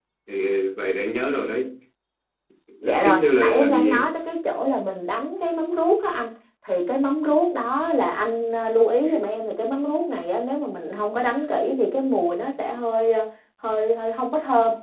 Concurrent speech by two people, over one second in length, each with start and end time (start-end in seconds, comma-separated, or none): 2.8-4.1